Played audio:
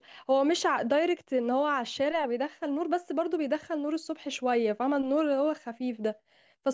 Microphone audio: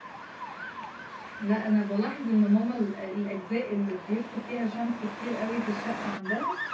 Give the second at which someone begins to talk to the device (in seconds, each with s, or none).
1.4 s